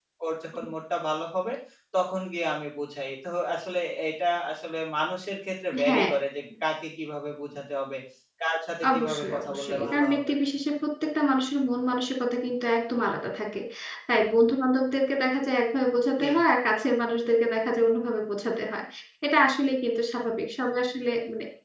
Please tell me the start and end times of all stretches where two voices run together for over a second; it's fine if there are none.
8.8-10.3

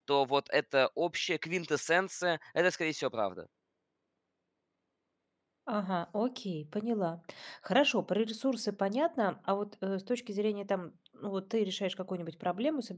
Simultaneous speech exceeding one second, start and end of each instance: none

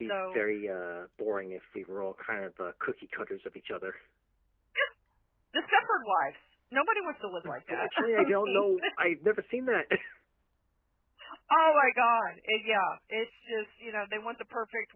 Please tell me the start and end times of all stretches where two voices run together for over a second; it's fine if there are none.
7.4-8.6

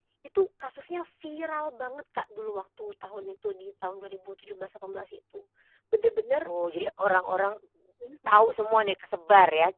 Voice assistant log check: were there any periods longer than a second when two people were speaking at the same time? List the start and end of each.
none

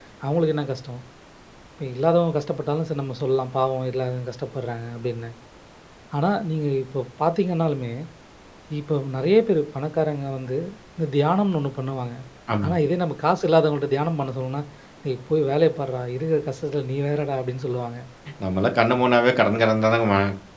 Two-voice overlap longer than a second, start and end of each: none

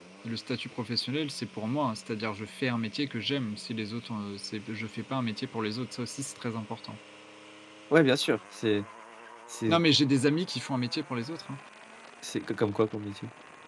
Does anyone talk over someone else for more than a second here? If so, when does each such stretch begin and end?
none

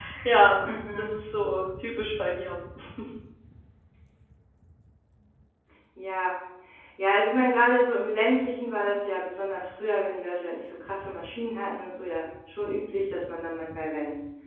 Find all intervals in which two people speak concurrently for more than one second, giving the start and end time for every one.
none

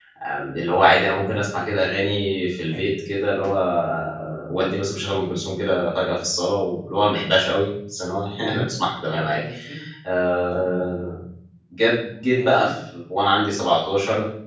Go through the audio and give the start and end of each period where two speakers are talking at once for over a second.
none

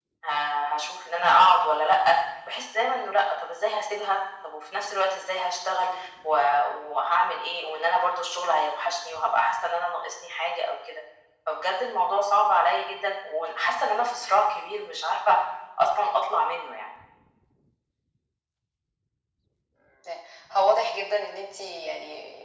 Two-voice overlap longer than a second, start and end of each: none

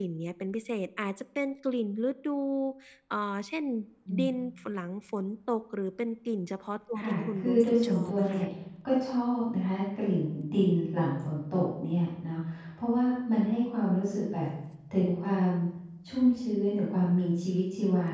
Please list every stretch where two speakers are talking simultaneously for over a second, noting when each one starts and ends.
7.0-8.4

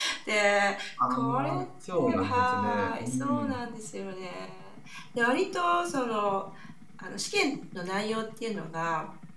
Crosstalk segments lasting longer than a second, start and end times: 2.2-3.6

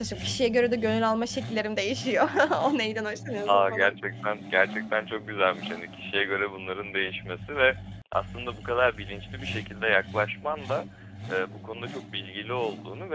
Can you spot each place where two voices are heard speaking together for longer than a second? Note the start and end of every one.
none

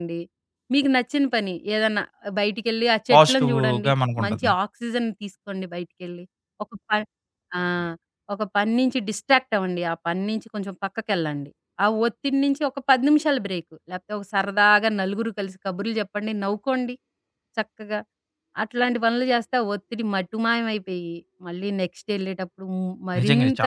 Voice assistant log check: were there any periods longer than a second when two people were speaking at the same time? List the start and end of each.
3.1-4.5

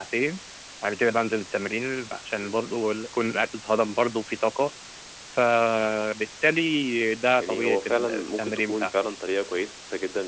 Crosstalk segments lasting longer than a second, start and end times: 7.4-8.9

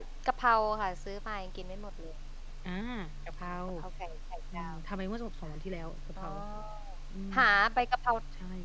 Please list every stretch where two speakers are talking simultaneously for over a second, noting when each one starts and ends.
none

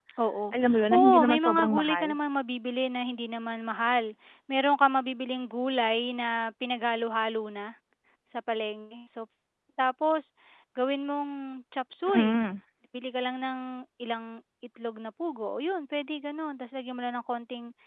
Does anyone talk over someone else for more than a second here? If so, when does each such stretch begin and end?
0.5-2.1

